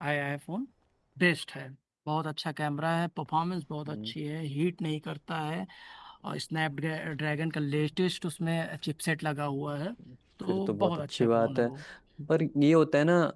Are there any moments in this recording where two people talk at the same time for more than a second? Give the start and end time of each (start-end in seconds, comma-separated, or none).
10.5-11.7